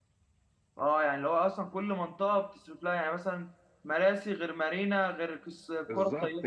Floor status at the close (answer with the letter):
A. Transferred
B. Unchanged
A